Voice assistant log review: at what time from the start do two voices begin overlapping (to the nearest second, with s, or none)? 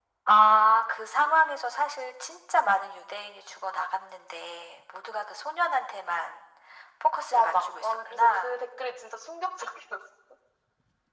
7 s